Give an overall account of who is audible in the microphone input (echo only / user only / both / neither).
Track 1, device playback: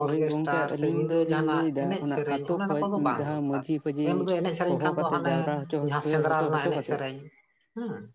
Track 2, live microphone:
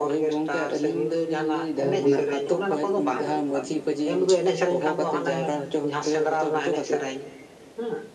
both